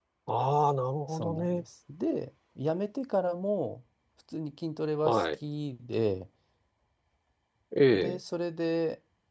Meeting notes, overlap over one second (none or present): none